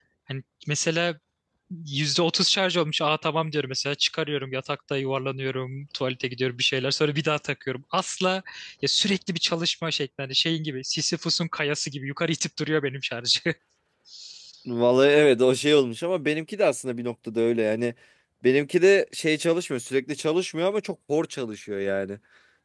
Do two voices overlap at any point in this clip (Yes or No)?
No